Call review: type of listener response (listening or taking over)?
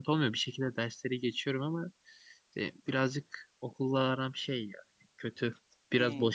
listening